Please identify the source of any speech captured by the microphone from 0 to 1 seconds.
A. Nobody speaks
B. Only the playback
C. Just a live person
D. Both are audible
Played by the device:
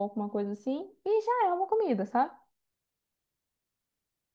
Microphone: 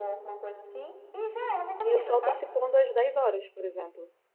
B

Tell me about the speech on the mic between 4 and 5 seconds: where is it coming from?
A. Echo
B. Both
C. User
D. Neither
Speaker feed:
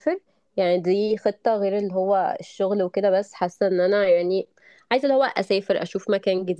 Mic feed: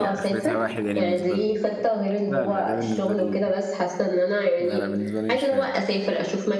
B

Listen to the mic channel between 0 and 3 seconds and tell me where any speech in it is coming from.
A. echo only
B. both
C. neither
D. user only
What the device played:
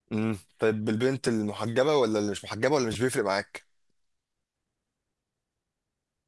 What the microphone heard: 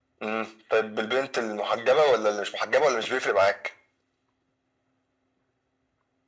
A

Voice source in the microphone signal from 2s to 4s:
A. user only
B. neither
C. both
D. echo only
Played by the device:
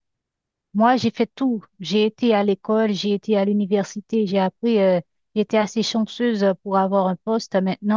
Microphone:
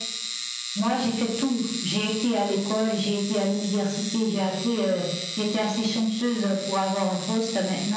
D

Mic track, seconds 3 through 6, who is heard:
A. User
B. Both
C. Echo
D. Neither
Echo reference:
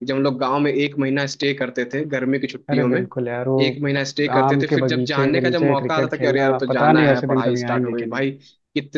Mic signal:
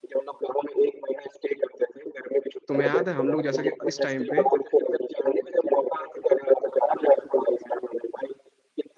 B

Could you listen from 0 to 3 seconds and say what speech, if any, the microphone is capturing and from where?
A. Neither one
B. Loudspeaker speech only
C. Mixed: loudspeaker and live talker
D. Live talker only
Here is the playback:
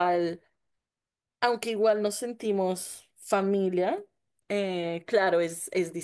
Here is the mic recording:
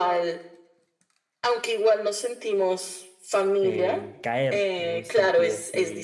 B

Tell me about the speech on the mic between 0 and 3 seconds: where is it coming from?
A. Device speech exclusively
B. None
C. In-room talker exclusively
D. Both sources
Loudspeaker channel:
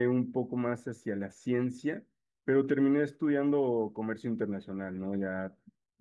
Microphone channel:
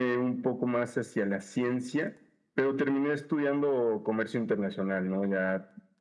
A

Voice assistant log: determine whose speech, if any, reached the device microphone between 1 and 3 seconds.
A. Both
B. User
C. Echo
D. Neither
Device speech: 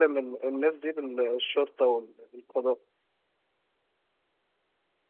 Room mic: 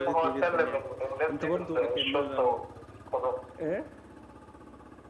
A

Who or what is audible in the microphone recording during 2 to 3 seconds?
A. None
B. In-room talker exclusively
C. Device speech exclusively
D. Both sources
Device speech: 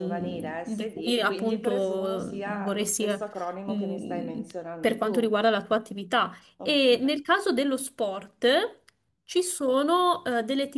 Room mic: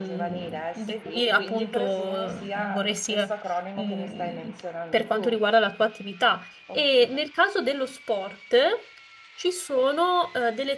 C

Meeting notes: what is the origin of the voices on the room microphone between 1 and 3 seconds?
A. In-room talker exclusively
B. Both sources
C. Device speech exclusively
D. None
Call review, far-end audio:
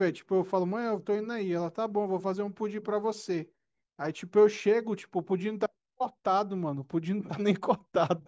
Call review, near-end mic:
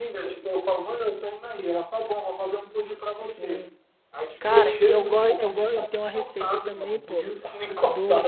C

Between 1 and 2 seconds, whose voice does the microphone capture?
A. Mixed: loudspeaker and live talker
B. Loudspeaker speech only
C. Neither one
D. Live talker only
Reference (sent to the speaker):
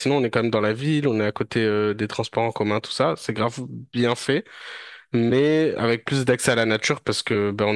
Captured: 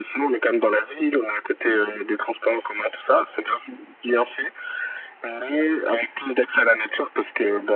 B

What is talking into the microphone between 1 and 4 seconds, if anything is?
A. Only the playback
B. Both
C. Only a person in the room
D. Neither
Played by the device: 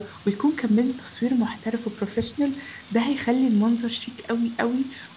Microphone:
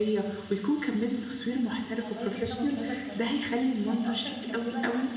B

